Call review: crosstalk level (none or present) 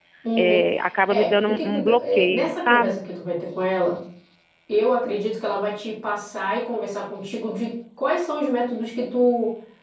present